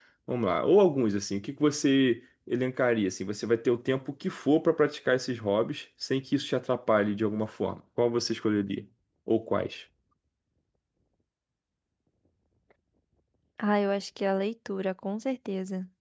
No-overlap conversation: Yes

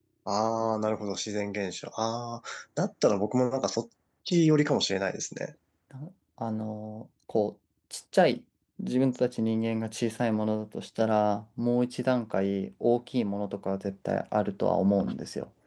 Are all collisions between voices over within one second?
Yes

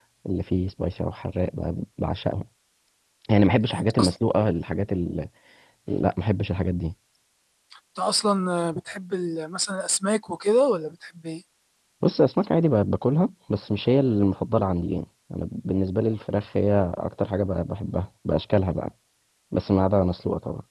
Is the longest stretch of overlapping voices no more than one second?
Yes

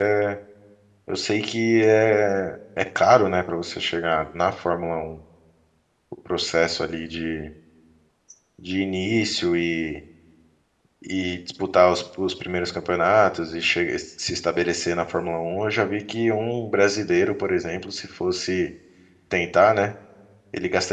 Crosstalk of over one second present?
No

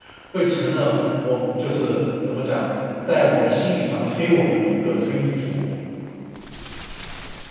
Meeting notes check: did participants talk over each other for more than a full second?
No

